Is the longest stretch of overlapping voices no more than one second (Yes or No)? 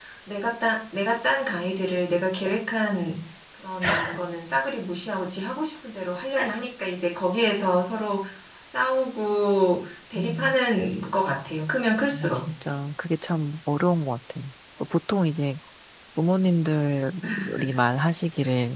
Yes